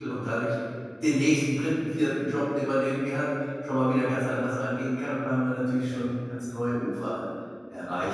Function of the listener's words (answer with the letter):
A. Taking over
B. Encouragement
A